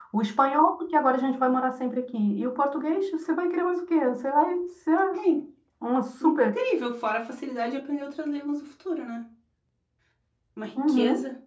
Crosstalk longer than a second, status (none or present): none